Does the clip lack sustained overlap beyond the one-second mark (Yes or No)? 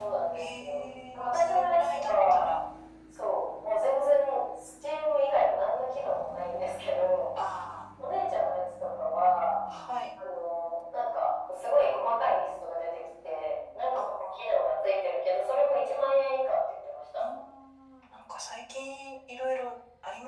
No